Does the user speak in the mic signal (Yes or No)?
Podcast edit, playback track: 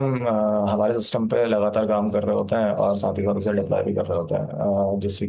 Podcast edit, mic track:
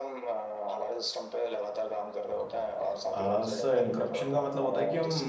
Yes